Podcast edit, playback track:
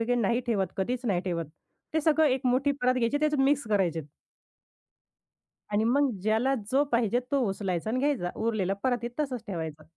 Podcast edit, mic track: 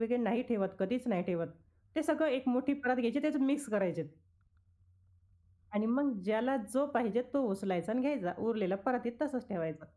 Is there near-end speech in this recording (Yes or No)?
No